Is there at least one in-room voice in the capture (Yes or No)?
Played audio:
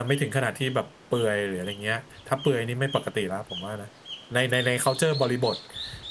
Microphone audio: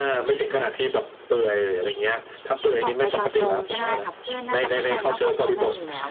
Yes